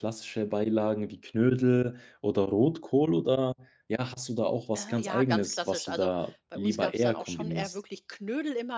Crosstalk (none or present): present